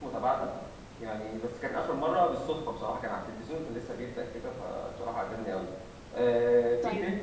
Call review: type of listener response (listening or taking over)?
taking over